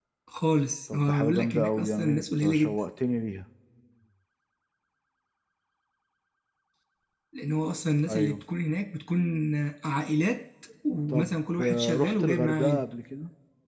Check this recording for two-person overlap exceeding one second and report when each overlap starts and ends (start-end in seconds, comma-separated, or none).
0.9-2.8, 11.1-12.8